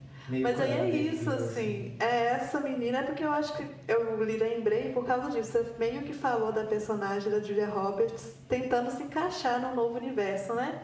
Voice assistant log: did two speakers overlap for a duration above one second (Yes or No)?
Yes